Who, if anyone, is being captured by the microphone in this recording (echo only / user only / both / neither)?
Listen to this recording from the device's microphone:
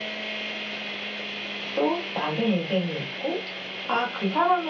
user only